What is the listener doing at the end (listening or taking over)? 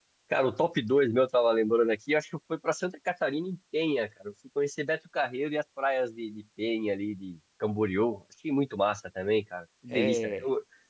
listening